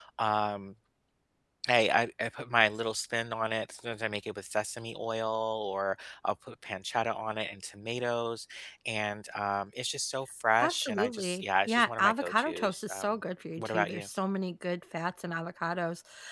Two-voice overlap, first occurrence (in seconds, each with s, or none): 10.6 s